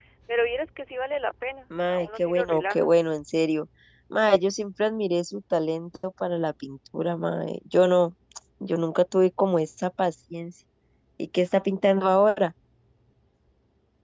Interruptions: present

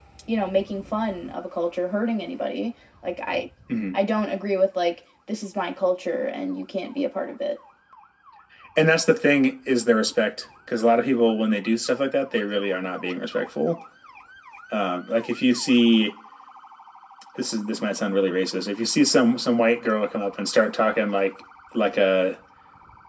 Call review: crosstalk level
none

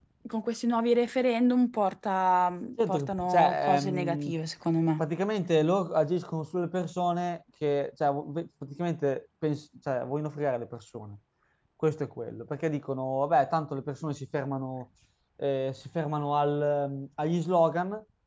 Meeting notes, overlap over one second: present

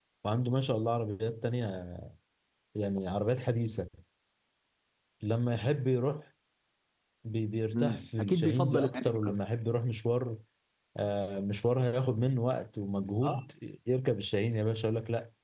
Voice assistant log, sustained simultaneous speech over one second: present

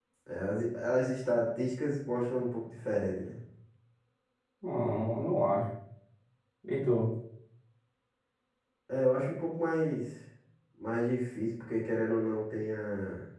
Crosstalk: none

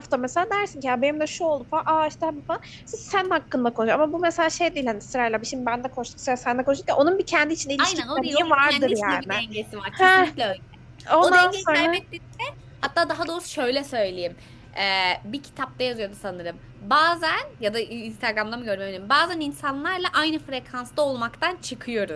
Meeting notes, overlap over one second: present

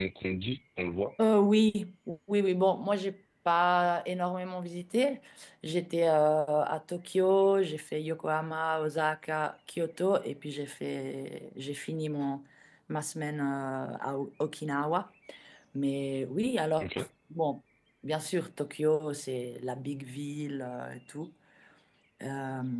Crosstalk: none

